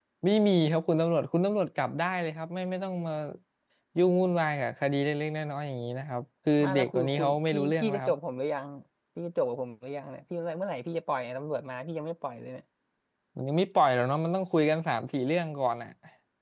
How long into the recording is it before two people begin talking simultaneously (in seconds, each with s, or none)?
6.6 s